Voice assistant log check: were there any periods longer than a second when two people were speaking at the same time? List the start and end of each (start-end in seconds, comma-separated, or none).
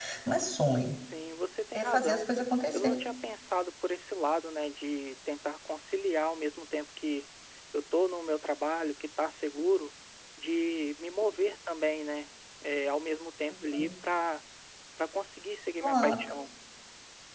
none